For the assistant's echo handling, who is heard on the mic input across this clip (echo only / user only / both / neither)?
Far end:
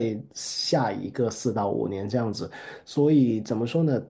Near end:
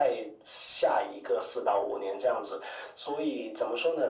echo only